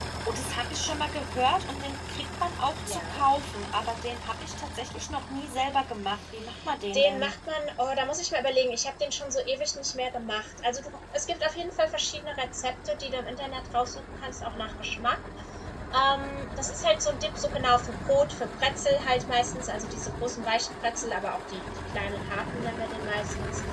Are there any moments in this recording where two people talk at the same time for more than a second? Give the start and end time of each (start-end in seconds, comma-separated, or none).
none